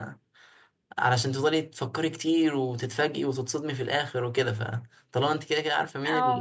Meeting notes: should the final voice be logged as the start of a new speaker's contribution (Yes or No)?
No